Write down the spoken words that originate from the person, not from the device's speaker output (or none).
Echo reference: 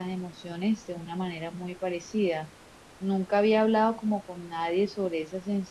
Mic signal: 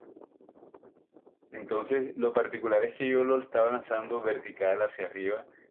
Entonces, lo particular es que yo lo estaba lanzando vertical hacia arriba